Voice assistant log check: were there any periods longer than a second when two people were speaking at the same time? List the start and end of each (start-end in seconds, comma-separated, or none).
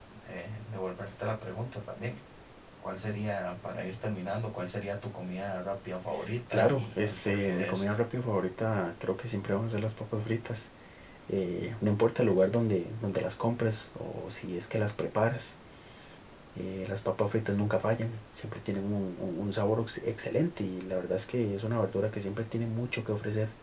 6.5-7.9